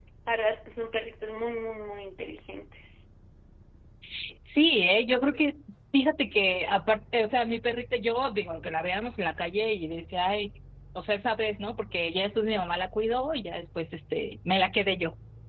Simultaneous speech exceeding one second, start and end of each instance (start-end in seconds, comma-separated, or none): none